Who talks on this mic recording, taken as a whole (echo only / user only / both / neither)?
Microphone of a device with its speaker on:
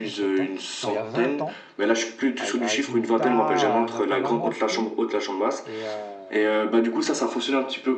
both